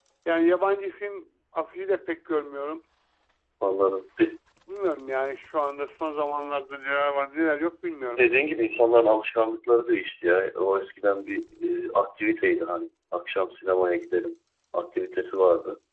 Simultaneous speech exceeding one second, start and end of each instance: none

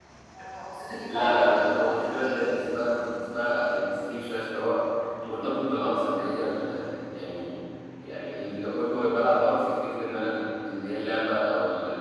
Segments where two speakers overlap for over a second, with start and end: 1.1-2.4

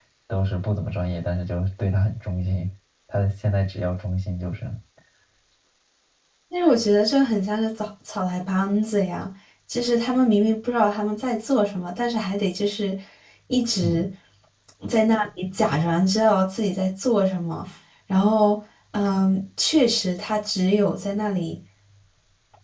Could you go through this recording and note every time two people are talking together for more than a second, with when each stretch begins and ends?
none

